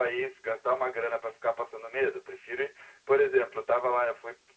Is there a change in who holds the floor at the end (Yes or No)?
No